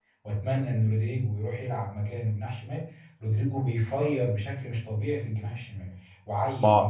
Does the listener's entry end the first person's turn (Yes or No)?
No